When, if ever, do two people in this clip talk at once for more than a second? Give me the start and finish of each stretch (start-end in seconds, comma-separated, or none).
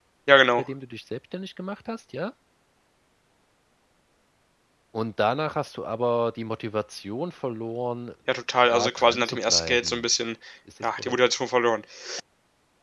8.7-10.1